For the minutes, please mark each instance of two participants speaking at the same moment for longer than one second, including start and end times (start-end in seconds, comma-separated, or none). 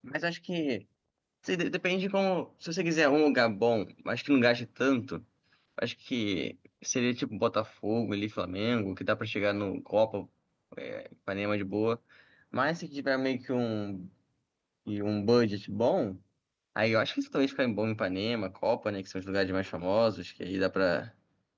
none